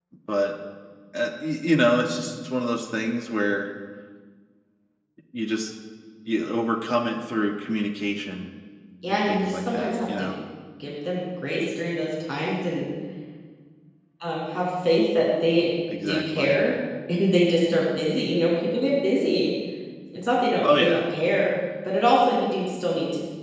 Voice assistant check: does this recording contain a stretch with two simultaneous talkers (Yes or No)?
Yes